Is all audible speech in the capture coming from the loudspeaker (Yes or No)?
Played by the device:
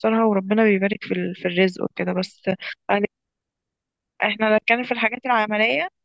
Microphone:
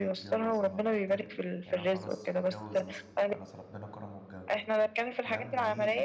No